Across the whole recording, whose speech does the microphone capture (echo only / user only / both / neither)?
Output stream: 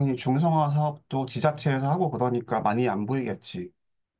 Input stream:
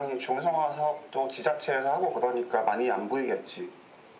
echo only